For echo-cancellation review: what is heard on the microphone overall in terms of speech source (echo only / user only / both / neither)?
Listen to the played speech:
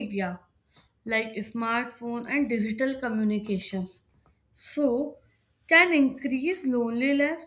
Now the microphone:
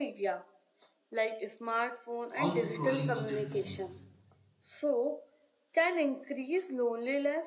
both